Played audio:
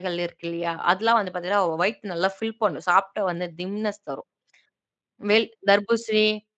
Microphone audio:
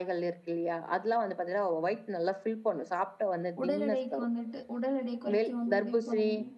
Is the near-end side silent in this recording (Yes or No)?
No